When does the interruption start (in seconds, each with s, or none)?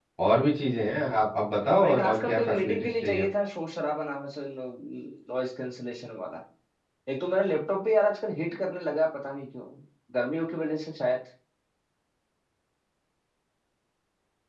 1.8 s